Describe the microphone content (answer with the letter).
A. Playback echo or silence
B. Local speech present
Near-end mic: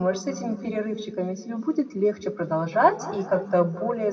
A